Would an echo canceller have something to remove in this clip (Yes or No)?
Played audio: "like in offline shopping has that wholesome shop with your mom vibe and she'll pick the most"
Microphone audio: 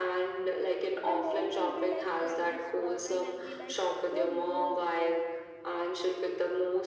Yes